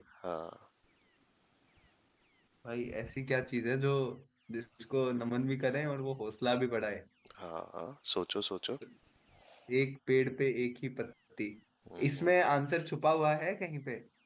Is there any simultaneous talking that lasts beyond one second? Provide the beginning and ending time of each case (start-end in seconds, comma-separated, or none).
none